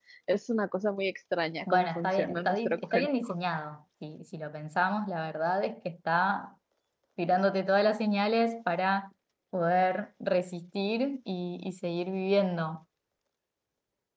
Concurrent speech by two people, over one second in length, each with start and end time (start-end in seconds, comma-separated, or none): 1.7-3.4